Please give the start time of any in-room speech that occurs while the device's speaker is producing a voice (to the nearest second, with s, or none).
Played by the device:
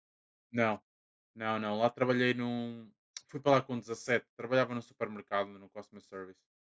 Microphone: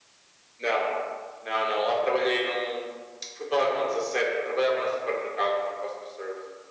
none